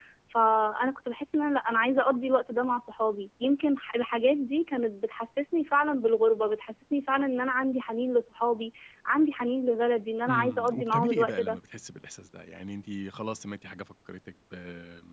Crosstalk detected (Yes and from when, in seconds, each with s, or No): Yes, from 10.3 s